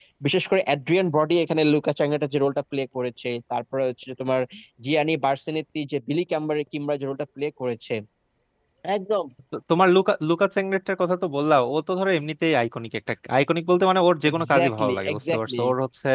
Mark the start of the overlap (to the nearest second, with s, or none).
14 s